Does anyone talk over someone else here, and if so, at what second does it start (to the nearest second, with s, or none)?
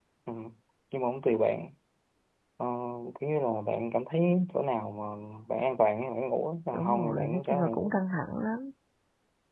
7 s